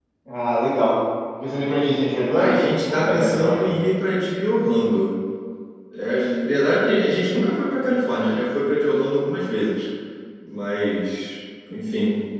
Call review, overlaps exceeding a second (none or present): present